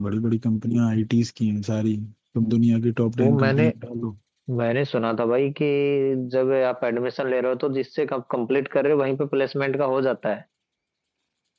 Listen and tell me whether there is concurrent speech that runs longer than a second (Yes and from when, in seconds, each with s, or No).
No